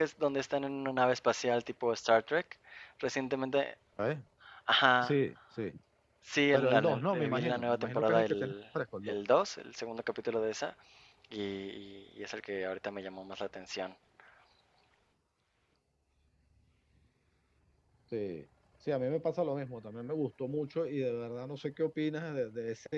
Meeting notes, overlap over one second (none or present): present